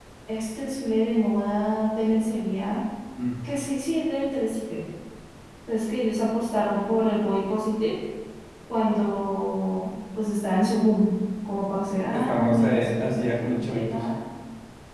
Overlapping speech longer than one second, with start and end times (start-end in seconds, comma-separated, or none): 12.1-14.1